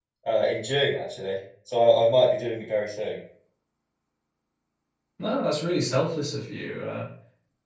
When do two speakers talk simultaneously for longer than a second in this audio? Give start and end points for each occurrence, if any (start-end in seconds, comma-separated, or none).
none